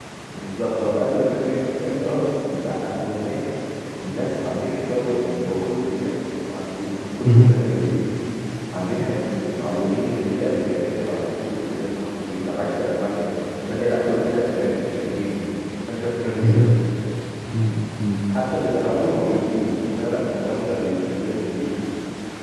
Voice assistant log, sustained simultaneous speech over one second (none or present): none